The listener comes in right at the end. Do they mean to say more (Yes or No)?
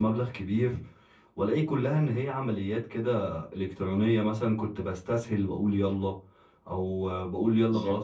No